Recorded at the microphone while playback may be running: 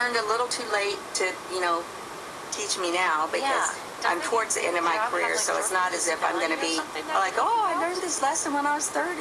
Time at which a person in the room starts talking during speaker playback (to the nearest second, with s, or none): none